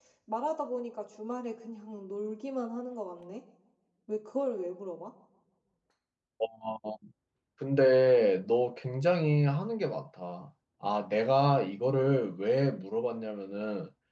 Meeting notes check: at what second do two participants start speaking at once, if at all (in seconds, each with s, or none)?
none